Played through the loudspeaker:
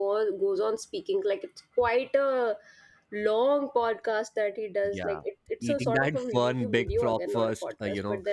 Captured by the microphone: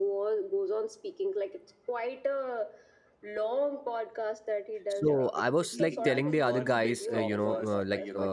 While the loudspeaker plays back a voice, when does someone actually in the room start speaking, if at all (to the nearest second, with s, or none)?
5 s